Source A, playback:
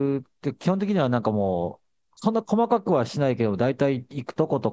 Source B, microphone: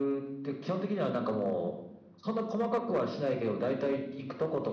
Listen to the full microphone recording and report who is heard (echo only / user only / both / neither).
echo only